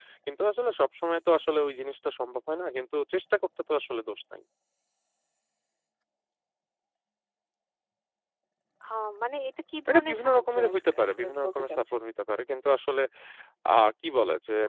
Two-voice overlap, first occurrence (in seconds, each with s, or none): 9.9 s